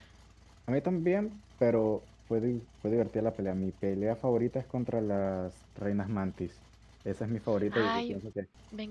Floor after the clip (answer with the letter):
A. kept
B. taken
B